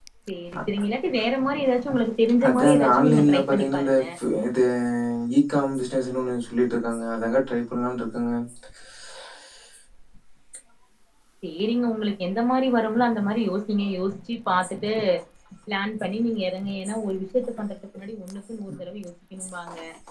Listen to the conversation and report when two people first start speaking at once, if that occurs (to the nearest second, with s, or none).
2 s